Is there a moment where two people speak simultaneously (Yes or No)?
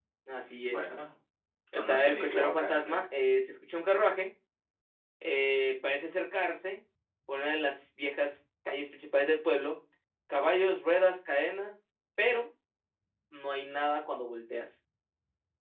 Yes